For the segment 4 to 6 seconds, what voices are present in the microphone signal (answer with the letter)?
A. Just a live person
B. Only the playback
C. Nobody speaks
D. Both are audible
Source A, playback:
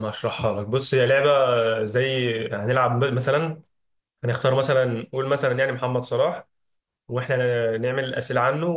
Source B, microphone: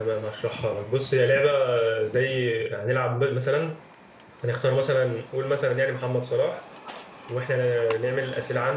B